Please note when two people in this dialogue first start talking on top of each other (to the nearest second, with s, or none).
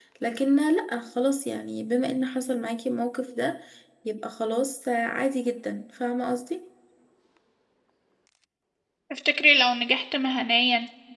none